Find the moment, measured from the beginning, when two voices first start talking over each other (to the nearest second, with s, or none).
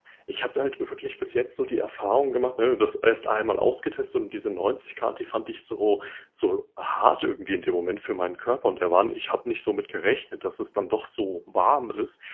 none